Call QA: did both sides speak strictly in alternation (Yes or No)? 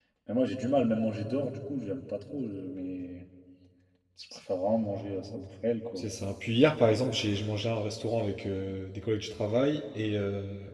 Yes